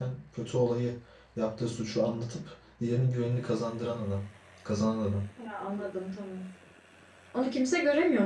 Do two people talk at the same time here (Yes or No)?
No